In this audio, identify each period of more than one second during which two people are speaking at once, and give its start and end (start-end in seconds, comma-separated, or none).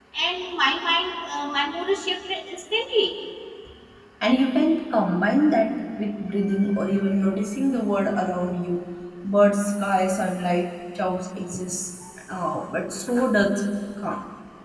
none